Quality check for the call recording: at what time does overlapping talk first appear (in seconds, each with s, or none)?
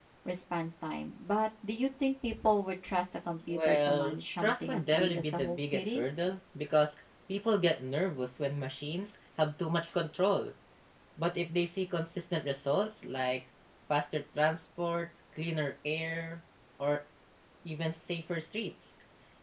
3.5 s